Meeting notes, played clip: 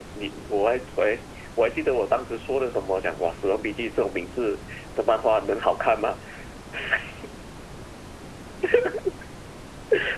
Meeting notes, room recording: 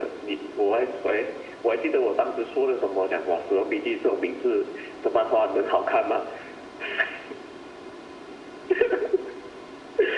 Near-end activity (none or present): none